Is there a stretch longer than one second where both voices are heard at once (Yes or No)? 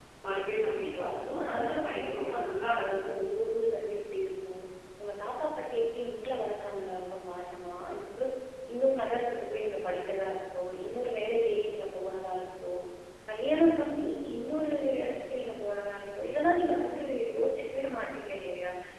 Yes